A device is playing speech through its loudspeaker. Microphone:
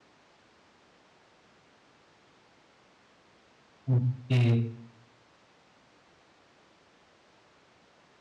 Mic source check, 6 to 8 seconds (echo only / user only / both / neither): neither